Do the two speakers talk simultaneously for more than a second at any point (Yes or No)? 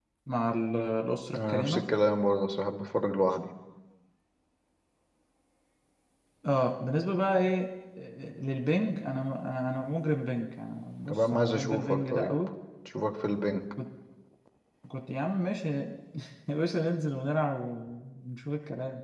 Yes